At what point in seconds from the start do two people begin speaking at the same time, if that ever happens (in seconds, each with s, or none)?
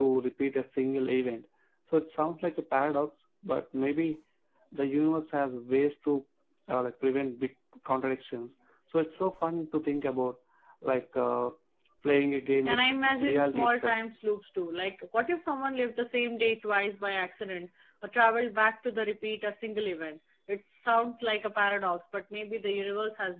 12.6 s